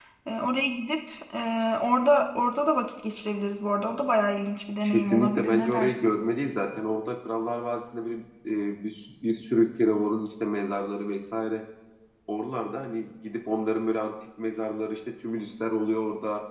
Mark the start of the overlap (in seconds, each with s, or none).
4.8 s